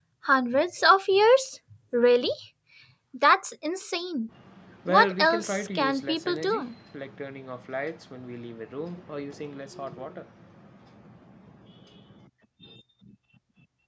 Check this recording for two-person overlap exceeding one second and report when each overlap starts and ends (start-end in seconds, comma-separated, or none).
4.9-6.7